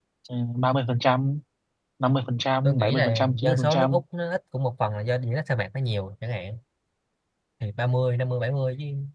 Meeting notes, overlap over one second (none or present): present